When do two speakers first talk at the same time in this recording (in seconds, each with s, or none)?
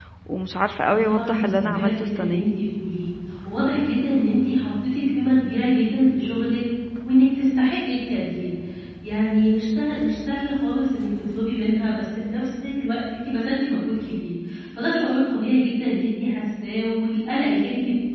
0.9 s